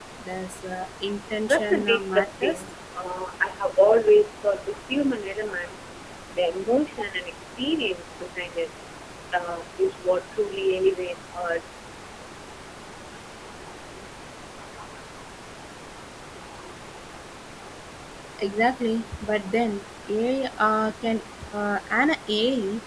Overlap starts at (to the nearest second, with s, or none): 1 s